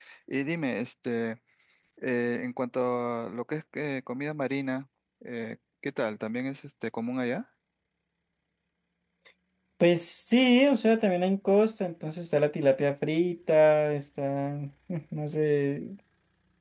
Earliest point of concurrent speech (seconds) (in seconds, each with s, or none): none